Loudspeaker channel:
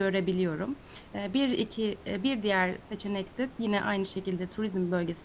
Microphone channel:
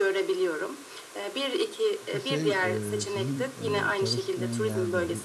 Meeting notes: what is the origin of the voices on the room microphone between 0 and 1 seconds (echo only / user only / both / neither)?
echo only